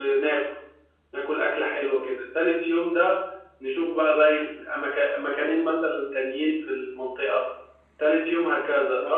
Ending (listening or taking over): listening